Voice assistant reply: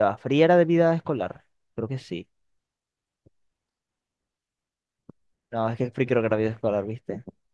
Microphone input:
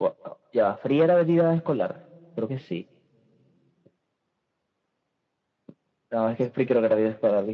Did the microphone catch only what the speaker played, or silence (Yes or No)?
Yes